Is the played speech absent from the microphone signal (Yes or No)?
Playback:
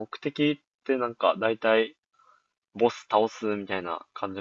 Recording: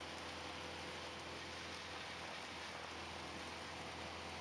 Yes